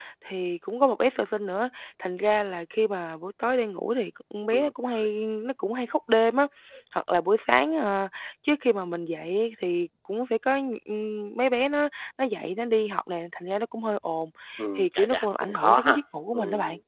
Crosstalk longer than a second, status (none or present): present